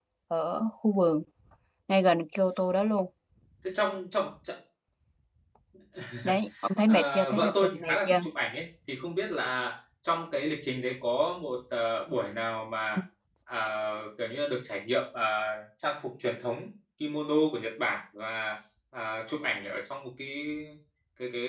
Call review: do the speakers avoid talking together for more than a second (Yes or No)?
No